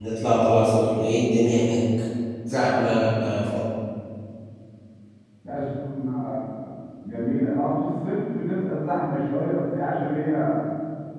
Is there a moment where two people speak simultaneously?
No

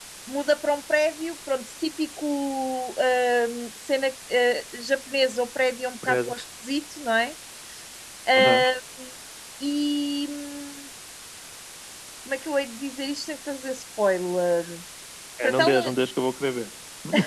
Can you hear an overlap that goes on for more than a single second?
No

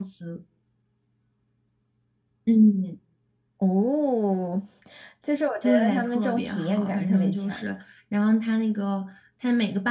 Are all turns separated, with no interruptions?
No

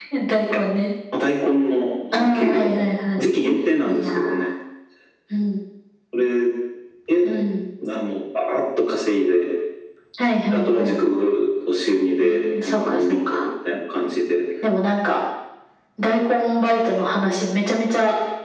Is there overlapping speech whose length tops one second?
Yes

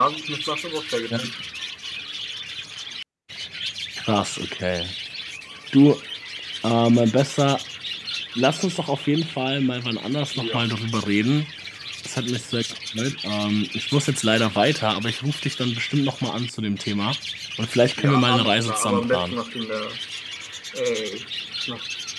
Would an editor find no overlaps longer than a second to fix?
No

